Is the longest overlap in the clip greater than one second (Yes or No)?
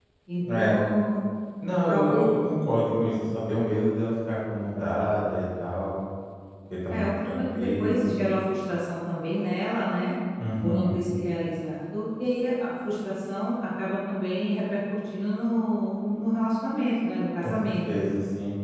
Yes